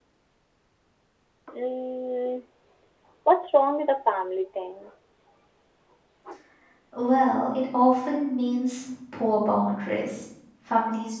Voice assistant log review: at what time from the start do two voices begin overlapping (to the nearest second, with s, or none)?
none